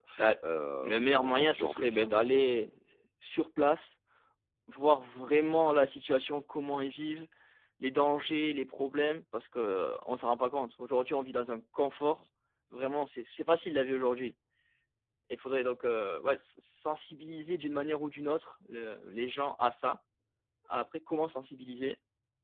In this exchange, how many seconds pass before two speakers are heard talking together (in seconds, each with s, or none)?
0.8 s